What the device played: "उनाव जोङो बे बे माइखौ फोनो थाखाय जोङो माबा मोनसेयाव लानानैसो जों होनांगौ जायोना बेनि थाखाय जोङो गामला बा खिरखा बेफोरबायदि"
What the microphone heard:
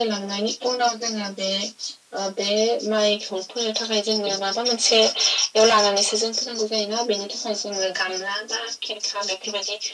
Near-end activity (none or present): none